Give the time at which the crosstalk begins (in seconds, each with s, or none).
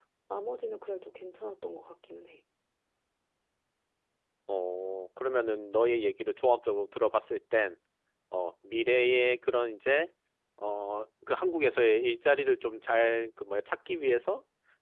none